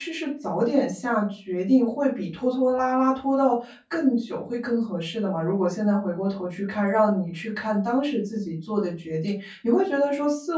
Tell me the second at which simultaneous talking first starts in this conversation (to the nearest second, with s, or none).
none